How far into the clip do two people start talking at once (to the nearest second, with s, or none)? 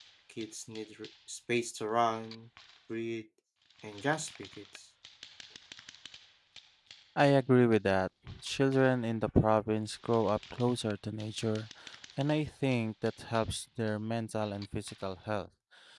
none